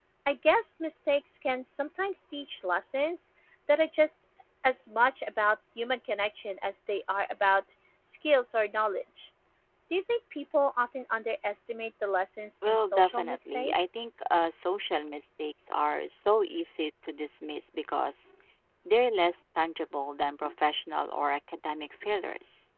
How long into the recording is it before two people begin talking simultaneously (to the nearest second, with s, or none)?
13 s